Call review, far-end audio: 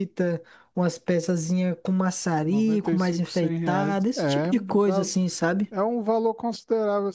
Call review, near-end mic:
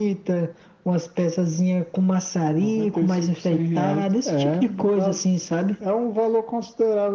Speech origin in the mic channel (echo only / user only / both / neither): echo only